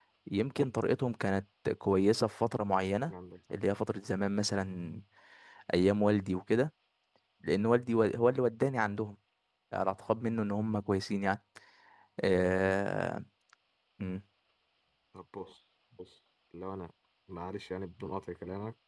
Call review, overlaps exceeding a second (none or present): none